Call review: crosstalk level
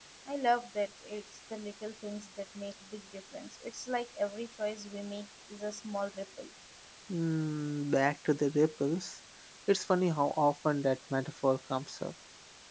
none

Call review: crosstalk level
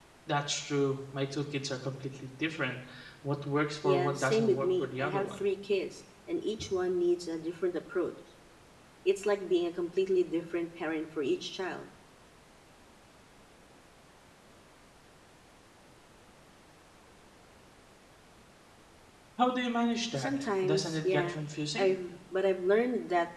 present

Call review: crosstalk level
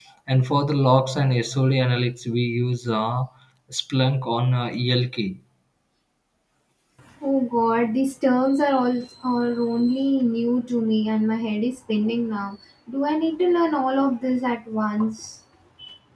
none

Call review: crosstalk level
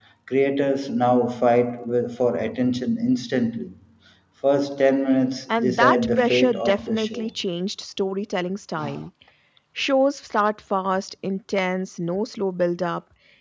present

